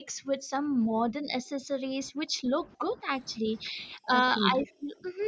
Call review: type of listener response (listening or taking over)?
listening